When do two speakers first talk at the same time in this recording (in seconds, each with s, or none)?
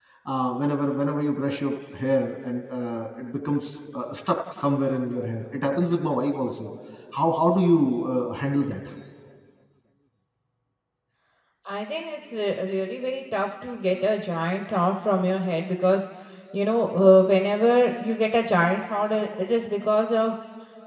none